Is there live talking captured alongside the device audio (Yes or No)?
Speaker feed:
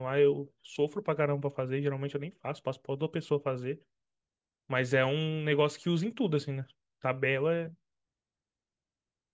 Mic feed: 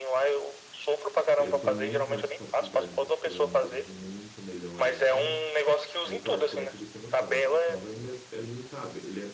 Yes